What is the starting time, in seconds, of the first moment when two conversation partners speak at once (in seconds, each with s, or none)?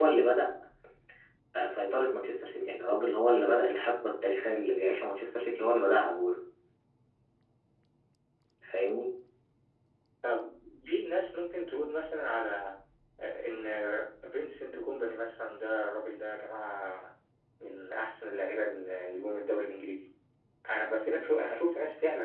none